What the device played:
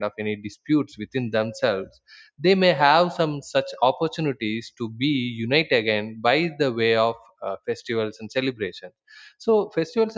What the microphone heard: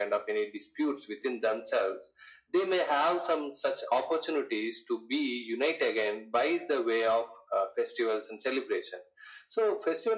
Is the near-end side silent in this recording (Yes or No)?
Yes